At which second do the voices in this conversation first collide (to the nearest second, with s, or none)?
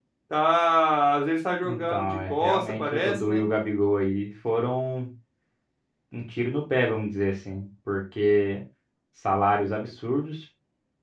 2 s